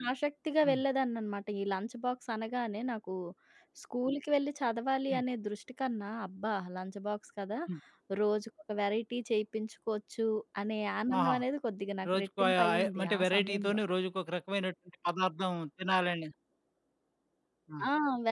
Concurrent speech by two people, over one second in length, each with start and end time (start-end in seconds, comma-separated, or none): 12.1-13.8